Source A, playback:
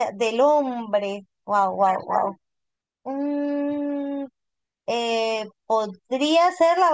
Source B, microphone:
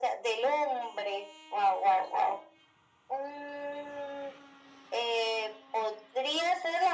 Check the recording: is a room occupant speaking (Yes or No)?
No